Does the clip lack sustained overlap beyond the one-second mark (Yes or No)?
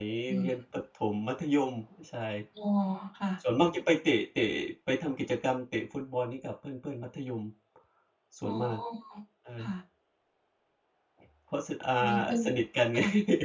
Yes